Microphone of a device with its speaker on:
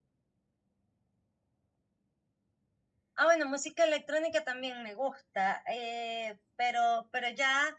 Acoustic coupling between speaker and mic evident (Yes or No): No